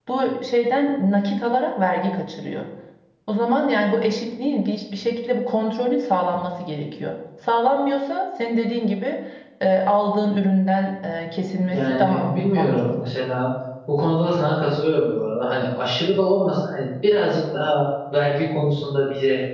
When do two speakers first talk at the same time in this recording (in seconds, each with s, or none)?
11.6 s